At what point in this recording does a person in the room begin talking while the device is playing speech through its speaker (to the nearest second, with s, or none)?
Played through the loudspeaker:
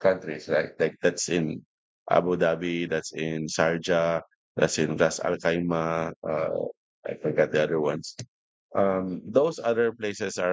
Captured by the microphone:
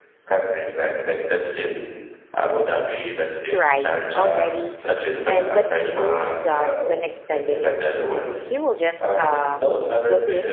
3 s